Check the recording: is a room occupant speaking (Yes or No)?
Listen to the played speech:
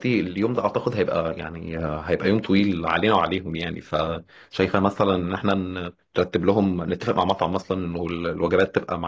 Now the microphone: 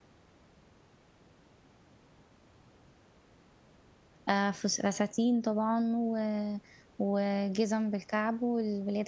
Yes